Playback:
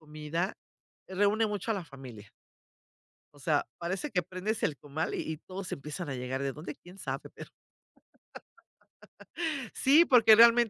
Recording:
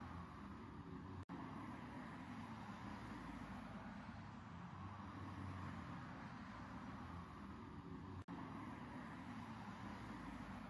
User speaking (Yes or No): No